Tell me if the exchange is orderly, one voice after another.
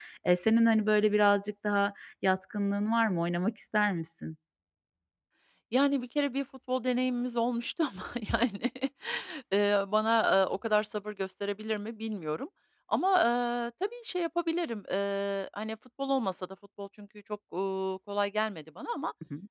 Yes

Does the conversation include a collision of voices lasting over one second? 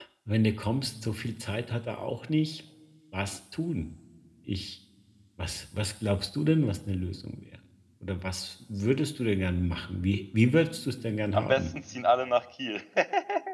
No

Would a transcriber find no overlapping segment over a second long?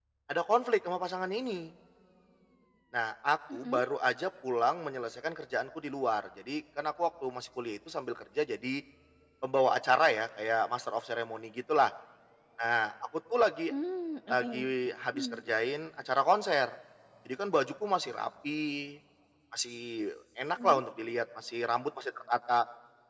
Yes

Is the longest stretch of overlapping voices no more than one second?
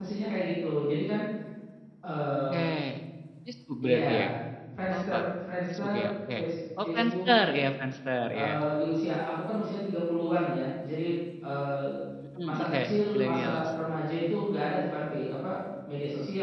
No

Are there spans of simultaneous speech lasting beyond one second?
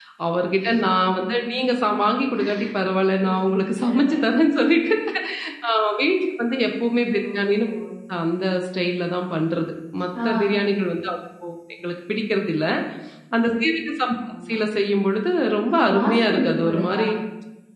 Yes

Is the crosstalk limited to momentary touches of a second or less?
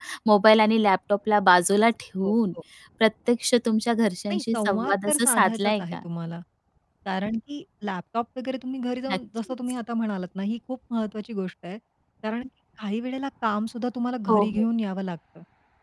No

